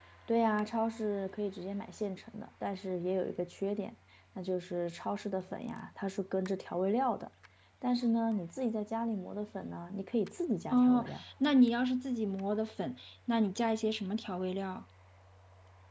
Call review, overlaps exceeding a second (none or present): none